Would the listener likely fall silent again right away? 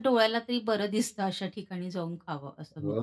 No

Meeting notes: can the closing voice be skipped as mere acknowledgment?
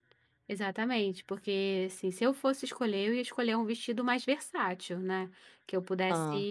Yes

